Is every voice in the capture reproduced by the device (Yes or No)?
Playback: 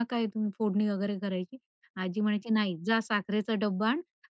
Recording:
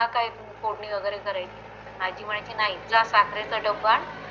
Yes